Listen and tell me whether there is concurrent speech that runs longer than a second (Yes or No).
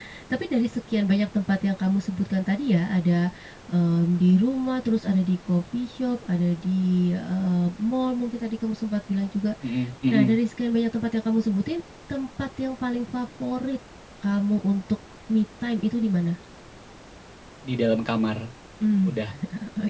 No